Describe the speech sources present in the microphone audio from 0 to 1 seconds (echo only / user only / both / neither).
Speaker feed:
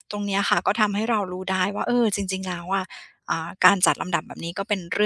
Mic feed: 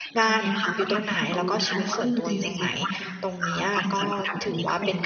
both